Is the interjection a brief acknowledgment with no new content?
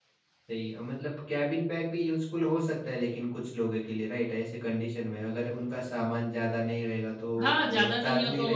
No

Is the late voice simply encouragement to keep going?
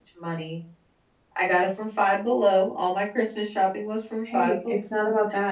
No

